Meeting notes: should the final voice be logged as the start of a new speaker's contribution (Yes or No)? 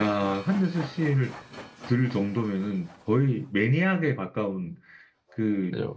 Yes